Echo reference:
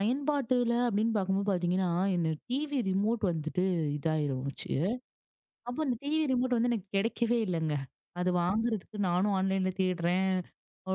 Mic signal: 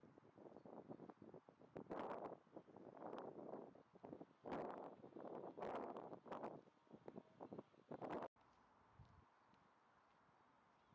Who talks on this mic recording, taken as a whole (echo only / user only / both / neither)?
neither